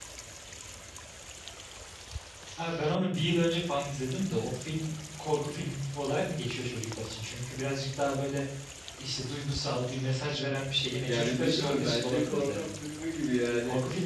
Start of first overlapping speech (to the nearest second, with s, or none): 11 s